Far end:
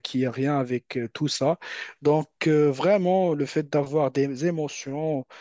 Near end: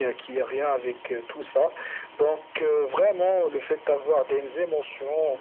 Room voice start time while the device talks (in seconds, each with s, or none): none